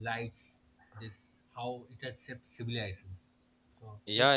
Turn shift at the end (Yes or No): Yes